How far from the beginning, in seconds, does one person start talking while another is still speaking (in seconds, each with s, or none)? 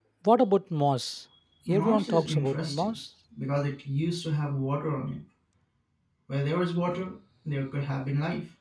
1.7 s